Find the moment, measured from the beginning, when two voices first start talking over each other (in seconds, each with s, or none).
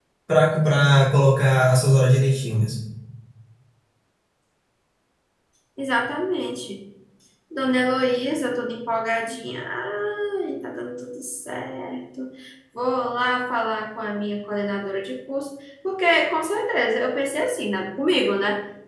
none